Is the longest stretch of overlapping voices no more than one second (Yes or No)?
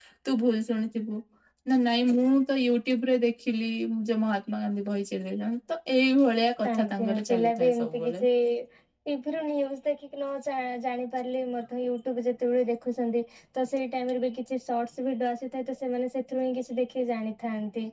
No